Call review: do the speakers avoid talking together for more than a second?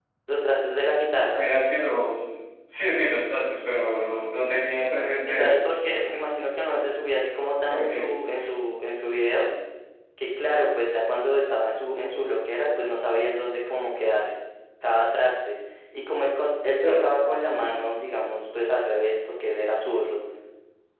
Yes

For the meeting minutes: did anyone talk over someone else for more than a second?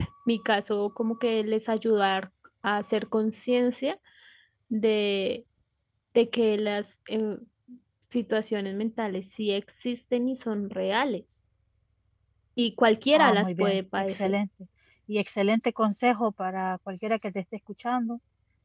Yes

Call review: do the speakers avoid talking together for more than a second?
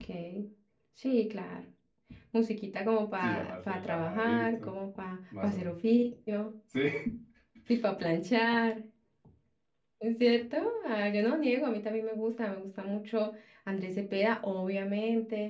No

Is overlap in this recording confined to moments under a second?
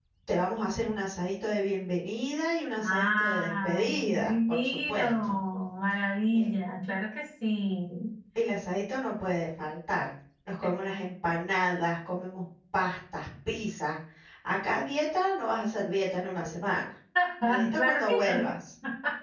No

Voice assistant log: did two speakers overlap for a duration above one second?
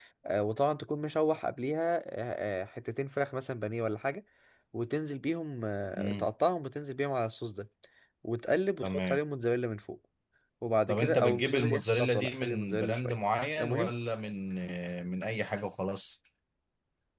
Yes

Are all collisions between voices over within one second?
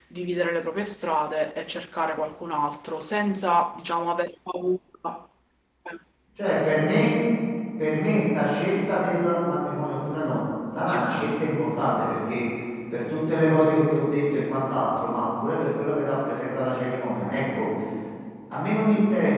Yes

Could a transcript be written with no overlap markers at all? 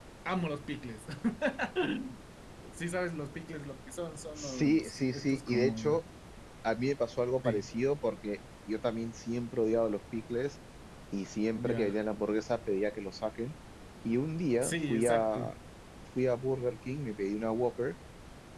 No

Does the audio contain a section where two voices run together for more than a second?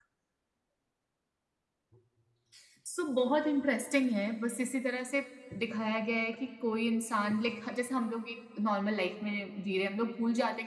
No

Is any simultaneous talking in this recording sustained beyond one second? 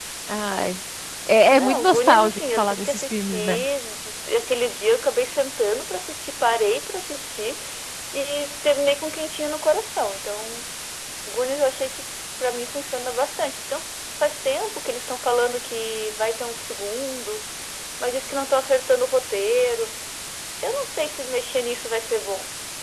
Yes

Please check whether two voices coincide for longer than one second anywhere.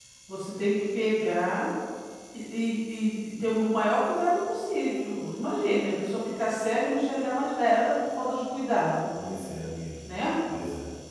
No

